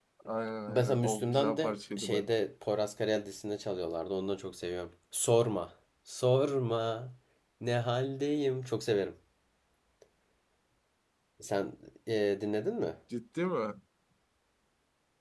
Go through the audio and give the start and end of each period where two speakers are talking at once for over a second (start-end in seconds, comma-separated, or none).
0.7-2.2